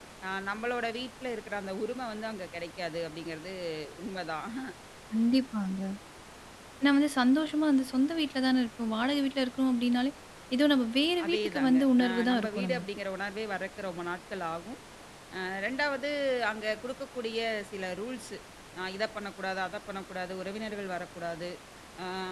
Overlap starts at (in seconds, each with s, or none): 11.2 s